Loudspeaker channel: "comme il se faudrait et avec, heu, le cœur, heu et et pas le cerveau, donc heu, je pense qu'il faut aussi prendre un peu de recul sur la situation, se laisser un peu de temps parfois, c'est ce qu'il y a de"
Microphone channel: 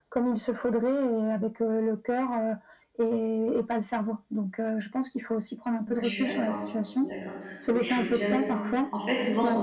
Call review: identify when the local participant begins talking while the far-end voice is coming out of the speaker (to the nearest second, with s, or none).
6 s